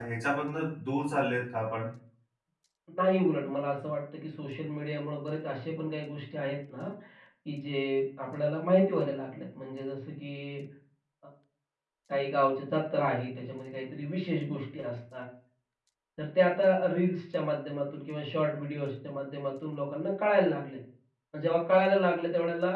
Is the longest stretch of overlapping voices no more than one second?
Yes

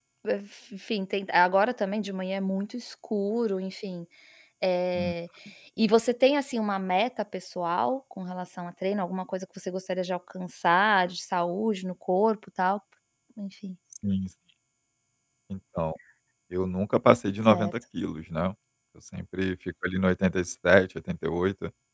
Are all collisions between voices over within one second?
Yes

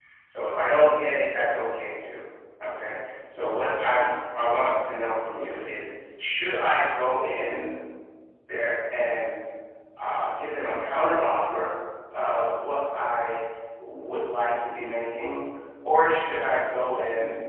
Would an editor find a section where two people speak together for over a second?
No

